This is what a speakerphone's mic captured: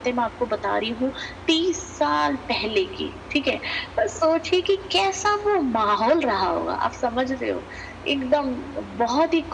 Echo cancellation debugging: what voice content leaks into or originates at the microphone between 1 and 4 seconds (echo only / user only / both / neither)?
echo only